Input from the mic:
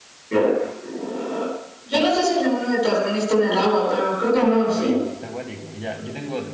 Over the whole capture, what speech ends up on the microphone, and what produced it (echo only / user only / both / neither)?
both